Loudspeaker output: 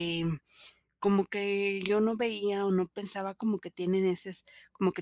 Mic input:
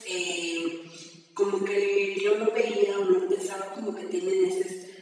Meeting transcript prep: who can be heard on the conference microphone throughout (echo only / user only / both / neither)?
echo only